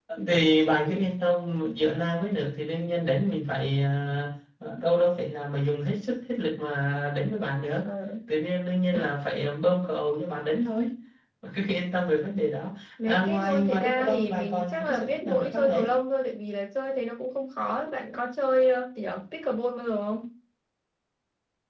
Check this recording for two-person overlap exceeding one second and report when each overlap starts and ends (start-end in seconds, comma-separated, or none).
13.1-15.9